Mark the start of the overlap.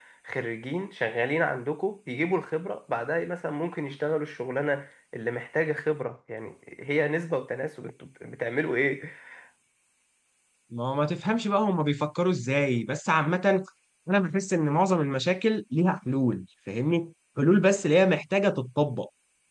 none

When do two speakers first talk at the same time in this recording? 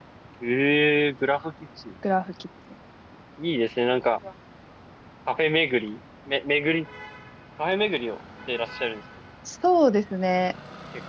none

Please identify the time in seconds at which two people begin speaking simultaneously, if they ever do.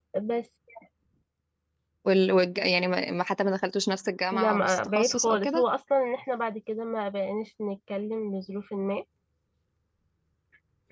4.3 s

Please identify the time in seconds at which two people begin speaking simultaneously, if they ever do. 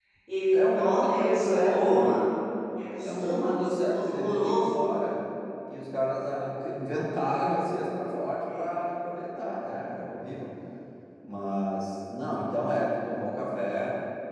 0.5 s

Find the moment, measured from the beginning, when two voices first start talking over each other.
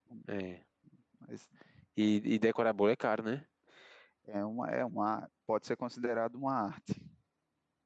none

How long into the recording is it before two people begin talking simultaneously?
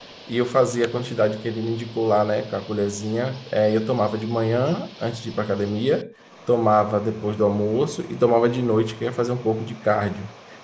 none

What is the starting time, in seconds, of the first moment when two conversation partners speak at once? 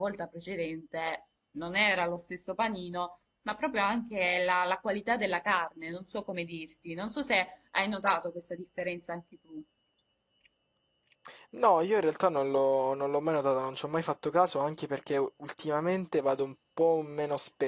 none

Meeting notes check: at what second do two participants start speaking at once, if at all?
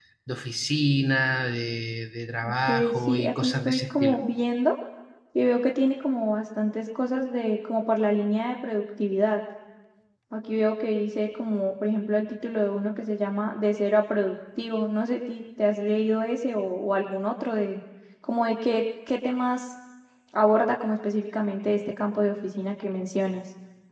2.4 s

